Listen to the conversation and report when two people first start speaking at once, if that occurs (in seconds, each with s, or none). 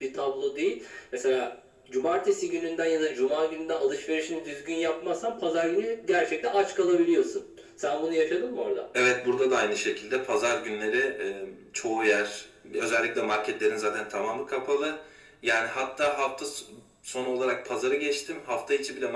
none